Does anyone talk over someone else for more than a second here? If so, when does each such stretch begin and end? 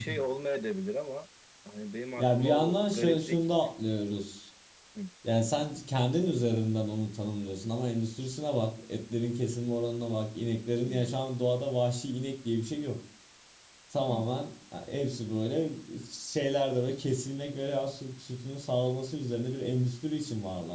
2.2-3.4

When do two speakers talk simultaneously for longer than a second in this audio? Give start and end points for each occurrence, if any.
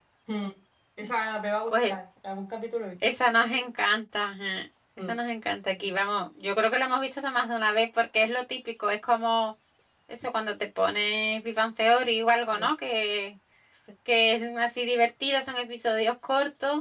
none

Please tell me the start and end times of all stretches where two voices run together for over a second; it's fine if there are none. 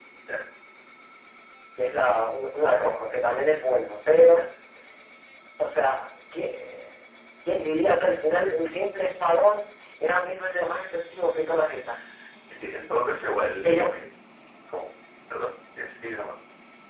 none

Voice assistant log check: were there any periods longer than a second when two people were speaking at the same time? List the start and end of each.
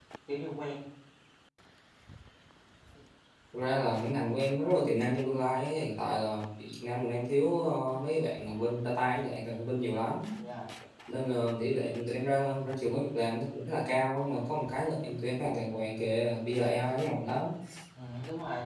none

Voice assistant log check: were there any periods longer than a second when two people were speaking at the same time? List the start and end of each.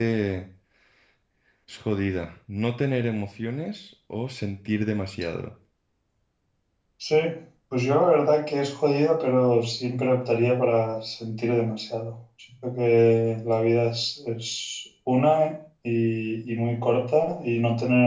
none

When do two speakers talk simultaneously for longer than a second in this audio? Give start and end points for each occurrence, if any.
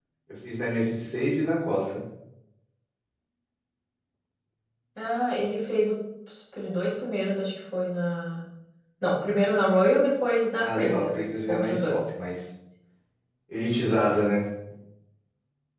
10.6-11.9

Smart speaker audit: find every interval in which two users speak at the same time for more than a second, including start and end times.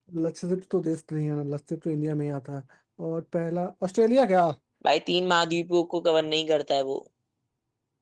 none

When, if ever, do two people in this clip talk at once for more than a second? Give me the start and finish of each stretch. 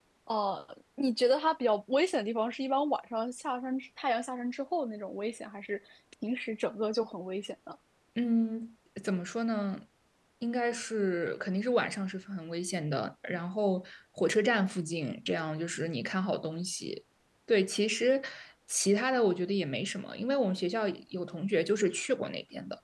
none

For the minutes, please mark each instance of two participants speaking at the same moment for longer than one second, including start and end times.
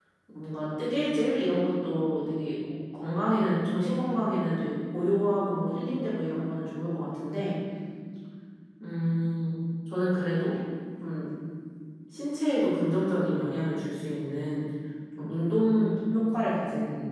none

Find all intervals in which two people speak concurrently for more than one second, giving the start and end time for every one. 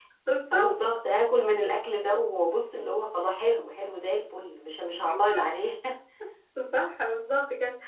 none

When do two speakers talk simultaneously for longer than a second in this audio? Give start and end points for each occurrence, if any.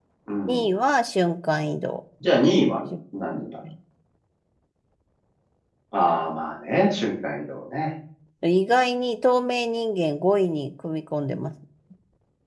none

